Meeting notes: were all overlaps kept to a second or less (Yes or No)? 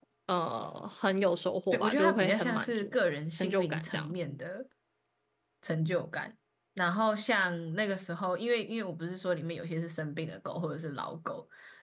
No